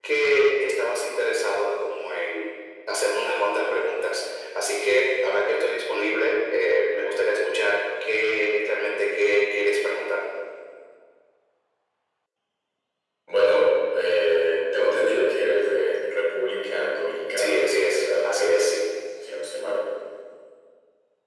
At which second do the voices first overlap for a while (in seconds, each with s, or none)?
17.4 s